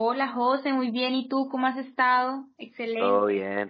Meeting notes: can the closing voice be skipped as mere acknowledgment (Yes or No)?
No